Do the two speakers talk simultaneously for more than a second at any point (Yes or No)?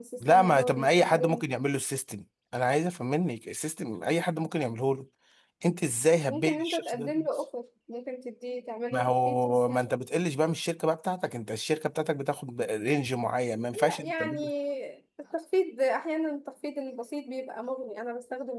Yes